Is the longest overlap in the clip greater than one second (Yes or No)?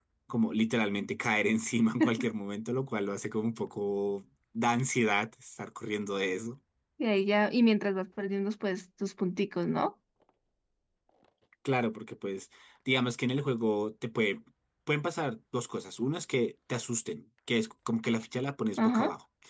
No